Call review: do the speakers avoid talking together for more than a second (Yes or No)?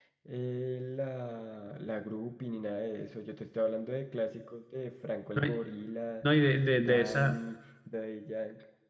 Yes